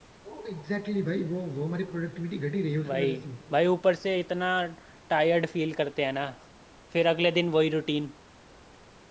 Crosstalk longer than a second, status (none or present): none